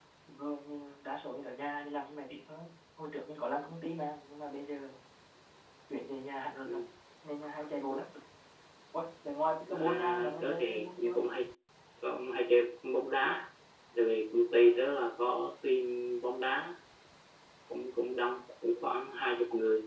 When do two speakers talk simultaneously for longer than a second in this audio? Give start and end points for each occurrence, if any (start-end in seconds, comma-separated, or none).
9.7-11.3